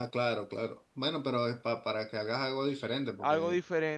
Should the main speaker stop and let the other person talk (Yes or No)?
Yes